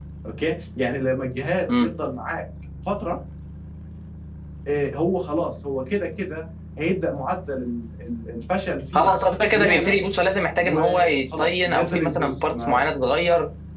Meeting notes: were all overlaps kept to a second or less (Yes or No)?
No